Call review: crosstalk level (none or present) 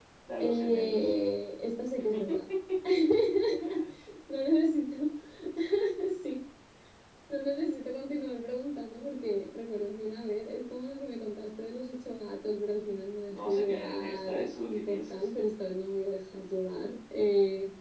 present